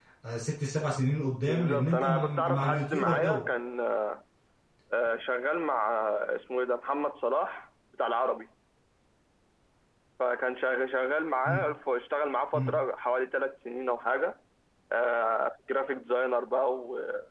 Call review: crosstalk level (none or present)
present